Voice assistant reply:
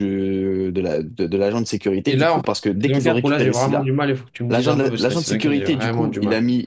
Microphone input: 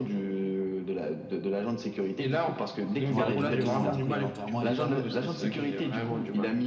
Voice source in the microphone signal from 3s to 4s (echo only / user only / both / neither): both